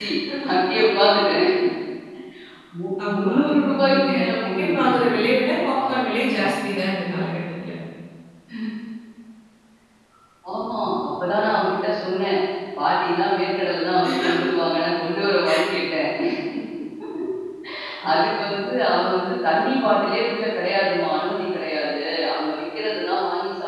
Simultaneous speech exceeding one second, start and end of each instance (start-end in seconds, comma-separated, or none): 3.1-5.0